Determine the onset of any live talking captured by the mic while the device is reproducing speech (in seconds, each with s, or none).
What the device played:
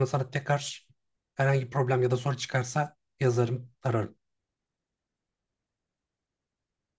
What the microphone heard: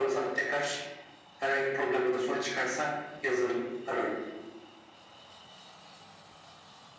none